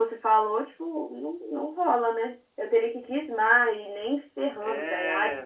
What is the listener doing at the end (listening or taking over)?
taking over